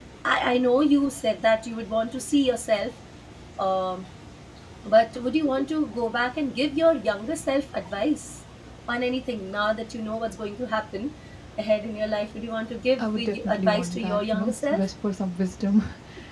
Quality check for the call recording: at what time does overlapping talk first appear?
13 s

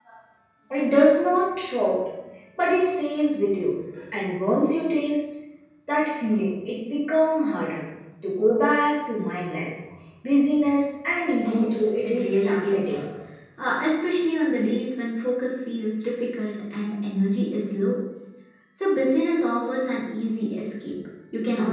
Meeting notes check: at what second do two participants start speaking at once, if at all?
11 s

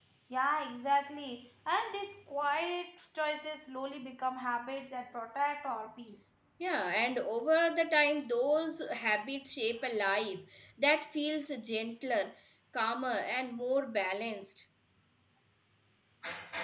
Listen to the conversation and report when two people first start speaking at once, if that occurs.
none

